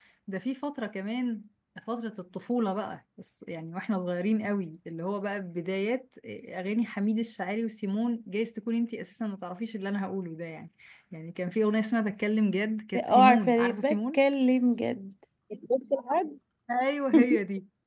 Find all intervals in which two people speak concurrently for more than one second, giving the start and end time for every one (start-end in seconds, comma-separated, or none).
13.0-14.2